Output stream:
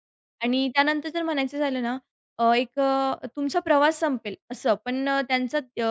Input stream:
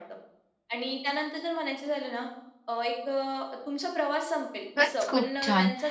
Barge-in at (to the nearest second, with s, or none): 5 s